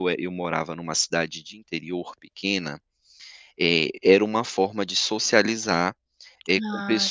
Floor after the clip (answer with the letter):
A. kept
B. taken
A